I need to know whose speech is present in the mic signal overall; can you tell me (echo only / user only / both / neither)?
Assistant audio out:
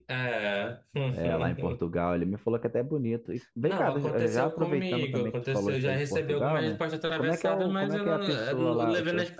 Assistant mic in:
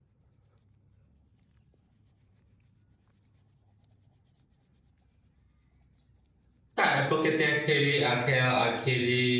user only